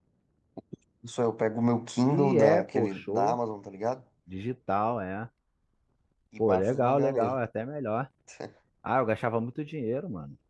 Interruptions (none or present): present